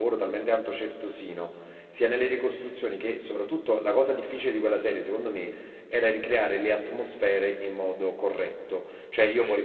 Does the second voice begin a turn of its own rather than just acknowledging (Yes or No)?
No